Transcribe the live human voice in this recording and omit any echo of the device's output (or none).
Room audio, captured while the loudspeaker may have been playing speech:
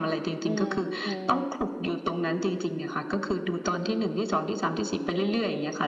อืมอืม